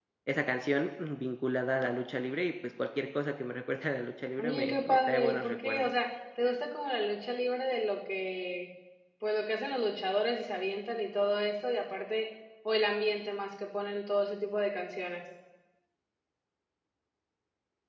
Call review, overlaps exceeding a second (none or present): present